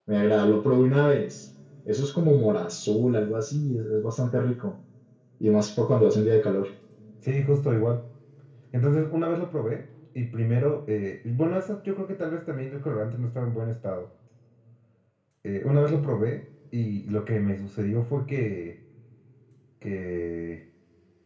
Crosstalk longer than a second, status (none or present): none